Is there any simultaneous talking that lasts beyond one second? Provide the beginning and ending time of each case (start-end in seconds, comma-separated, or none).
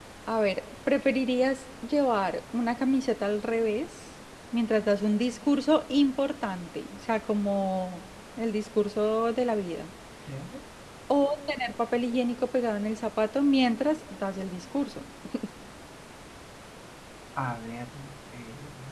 none